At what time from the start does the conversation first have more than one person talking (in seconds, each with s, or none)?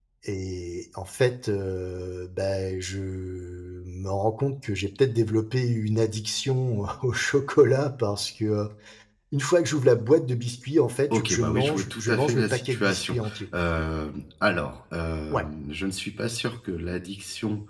11.1 s